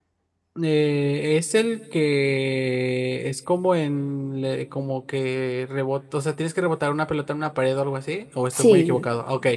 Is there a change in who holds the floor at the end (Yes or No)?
Yes